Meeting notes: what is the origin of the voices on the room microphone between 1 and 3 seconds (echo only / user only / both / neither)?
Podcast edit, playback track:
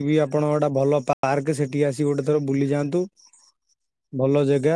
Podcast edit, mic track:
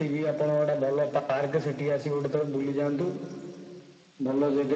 echo only